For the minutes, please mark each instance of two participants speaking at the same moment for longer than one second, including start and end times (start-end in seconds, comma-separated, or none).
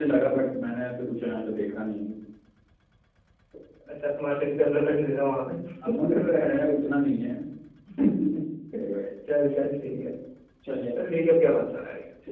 none